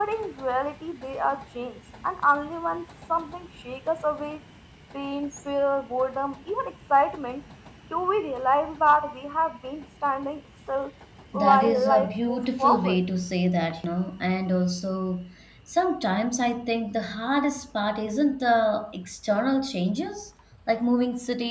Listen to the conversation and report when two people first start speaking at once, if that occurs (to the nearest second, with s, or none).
11 s